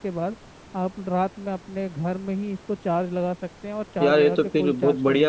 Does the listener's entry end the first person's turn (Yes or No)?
Yes